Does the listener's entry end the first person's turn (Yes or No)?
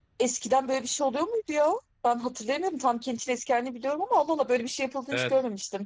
Yes